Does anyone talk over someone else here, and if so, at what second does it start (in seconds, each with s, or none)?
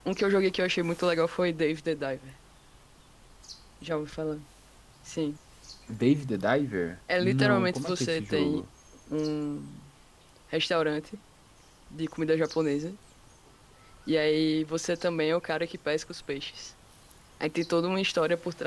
7.1 s